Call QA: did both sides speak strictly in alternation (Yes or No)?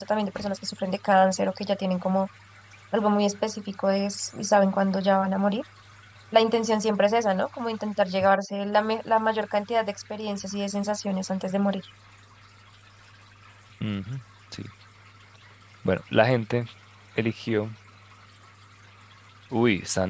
Yes